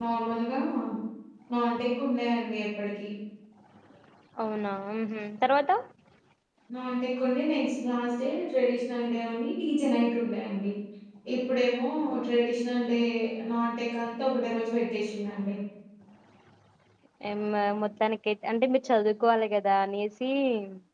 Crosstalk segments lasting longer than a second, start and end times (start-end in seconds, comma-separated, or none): none